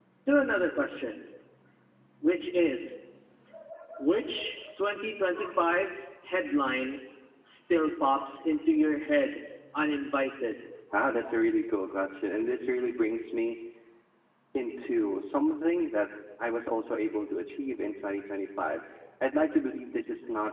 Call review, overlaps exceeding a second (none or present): none